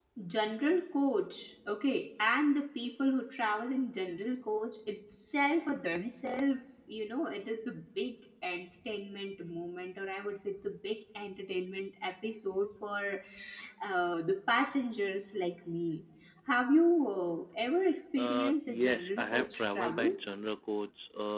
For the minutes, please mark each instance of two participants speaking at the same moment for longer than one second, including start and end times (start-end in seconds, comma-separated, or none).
18.2-20.2